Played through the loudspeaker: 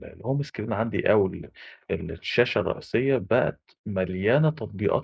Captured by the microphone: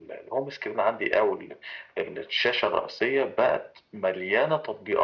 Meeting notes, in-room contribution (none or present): none